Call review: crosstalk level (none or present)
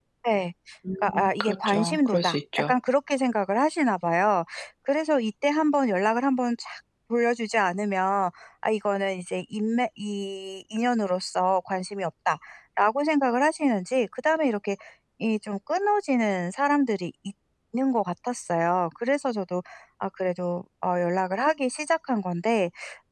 present